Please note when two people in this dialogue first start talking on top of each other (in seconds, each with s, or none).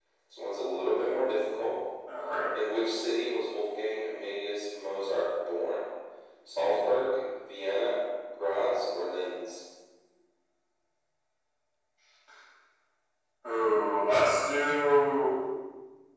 none